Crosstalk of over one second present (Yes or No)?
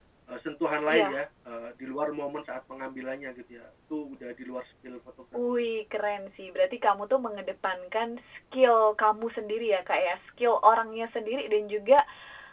No